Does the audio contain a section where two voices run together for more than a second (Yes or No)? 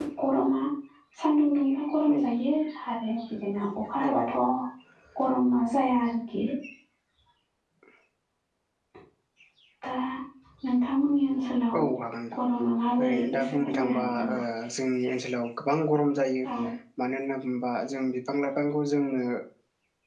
Yes